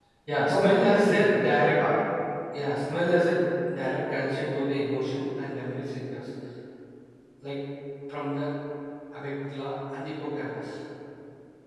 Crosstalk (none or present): present